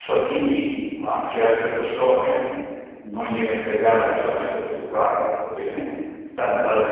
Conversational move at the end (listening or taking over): listening